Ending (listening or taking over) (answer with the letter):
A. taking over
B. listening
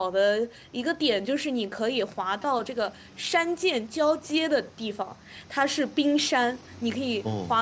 B